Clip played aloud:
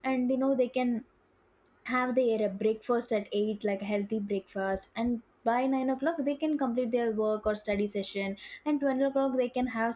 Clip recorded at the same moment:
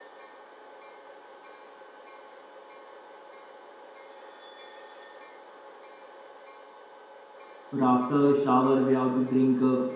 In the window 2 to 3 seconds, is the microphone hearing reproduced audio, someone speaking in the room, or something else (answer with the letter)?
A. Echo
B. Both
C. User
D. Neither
D